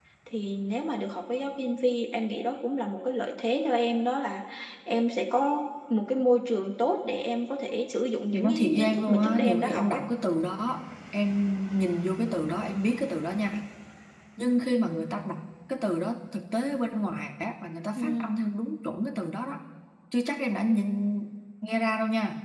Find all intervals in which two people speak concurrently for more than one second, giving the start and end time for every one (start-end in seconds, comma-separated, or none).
8.3-10.0